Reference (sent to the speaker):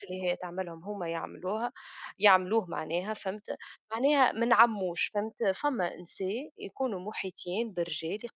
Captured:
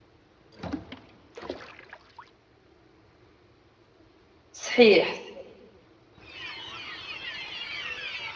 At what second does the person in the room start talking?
5 s

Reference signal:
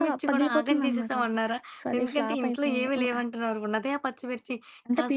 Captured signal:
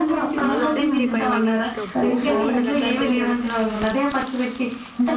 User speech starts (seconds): 0 s

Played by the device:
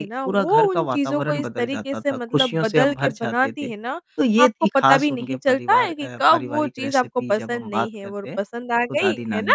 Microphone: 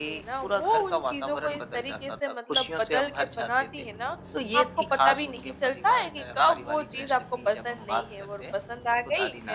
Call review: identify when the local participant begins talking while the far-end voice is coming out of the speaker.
none

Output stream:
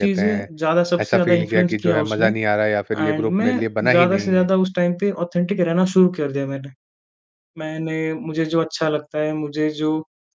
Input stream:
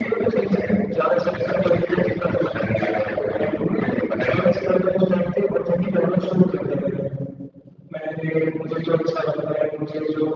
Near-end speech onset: none

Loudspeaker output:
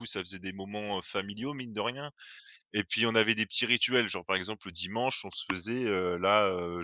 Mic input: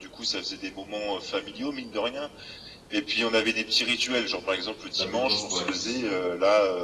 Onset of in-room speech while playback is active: 5 s

